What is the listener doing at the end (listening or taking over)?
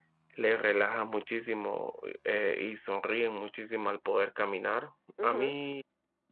listening